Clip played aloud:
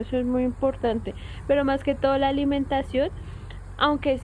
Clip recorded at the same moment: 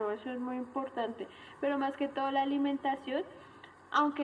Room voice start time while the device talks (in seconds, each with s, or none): none